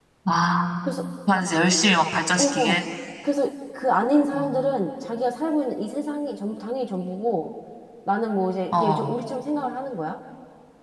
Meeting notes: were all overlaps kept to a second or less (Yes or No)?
Yes